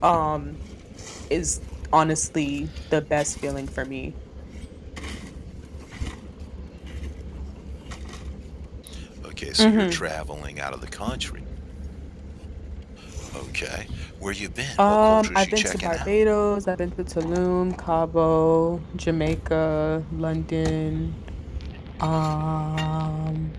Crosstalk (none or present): present